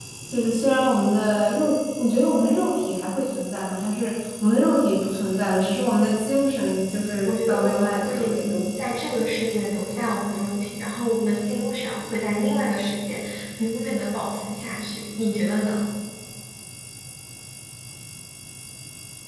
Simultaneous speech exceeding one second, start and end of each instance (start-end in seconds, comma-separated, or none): 7.2-8.5